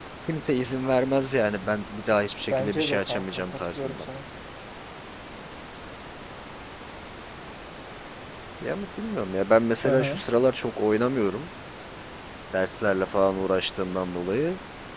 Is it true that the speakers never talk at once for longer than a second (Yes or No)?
No